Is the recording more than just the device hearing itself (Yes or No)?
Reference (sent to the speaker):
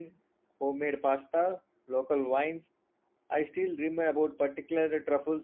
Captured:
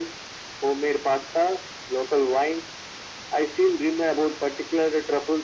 No